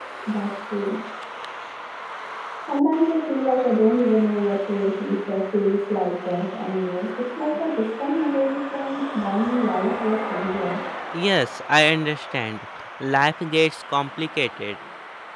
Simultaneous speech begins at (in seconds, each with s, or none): none